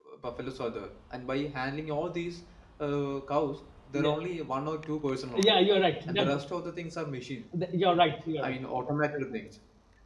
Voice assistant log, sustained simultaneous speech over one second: none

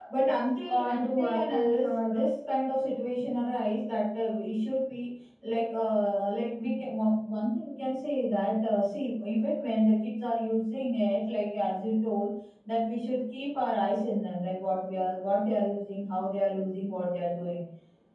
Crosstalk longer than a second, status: present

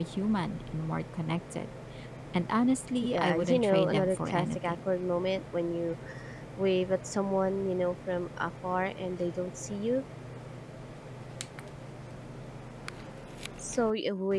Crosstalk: present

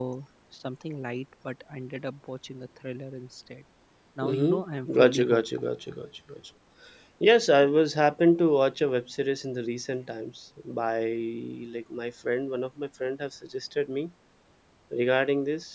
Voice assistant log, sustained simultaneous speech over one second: present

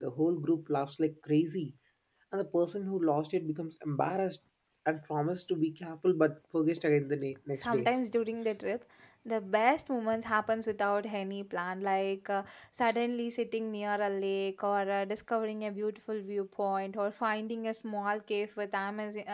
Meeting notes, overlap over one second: none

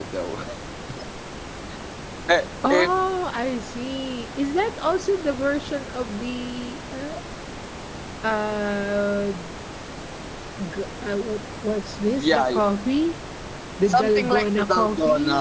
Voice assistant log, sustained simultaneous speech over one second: present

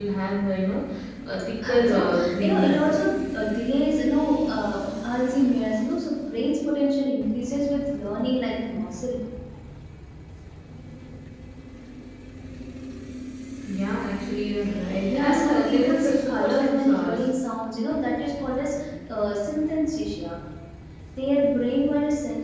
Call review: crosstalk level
present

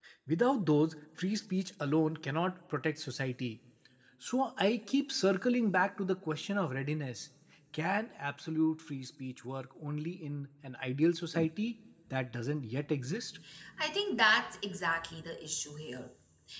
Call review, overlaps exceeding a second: none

